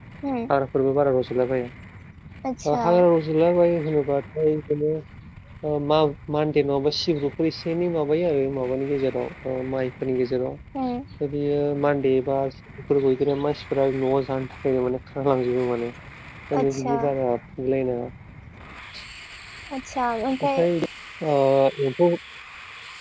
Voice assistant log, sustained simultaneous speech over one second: none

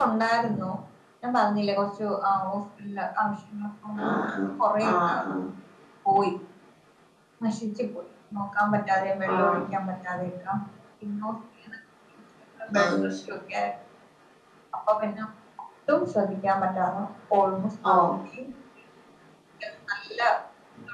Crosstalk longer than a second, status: none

